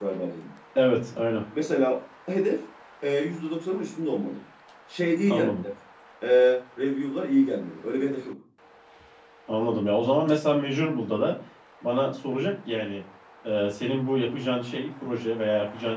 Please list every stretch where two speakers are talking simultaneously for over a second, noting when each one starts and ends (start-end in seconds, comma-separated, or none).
none